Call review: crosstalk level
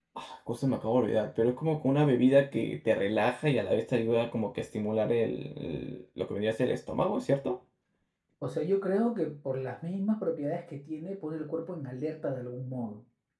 none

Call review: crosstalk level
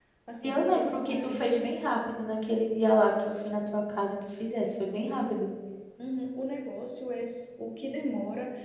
present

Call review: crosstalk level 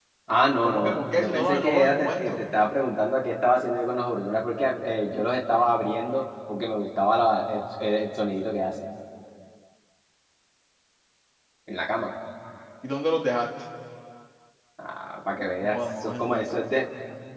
present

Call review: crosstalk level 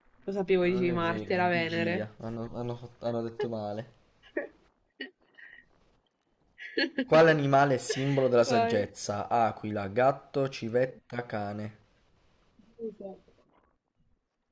present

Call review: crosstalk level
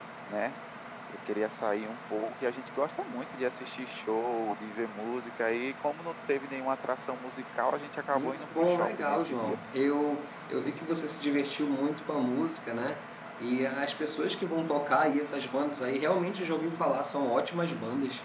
present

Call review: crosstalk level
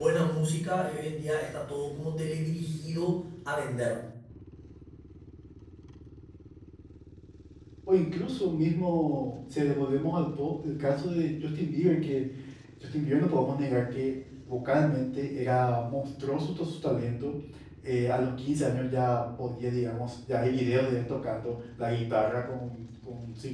none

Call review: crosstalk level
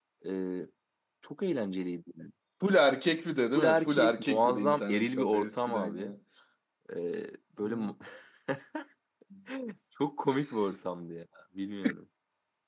present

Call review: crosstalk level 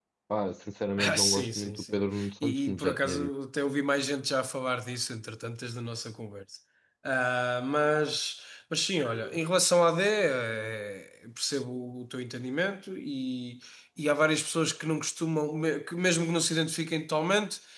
present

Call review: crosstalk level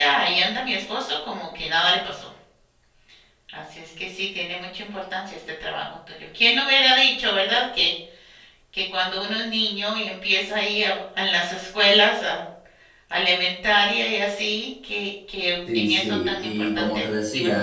present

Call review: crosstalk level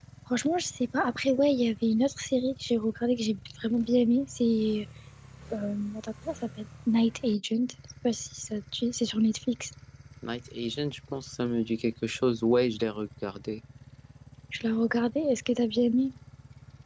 none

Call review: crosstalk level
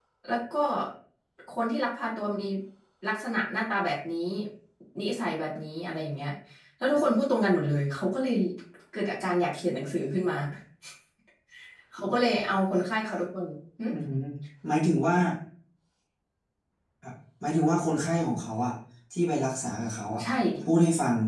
none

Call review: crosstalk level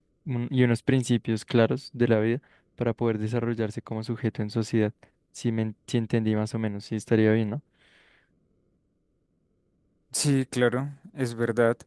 none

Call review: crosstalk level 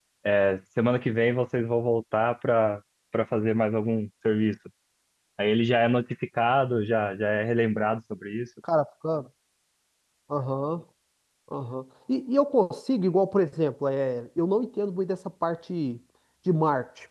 none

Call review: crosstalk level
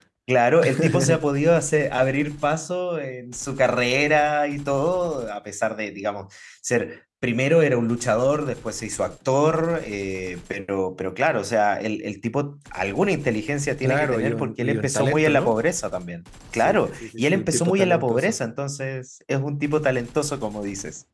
present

